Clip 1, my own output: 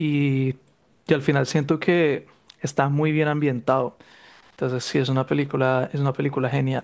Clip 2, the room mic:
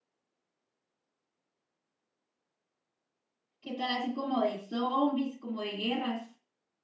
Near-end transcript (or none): ¿Qué tal así como de zombies, como de guerras?